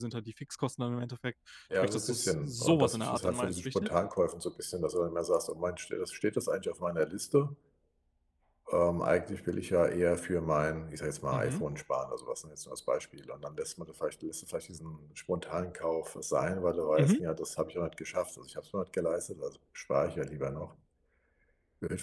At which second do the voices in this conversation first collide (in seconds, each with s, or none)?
1.7 s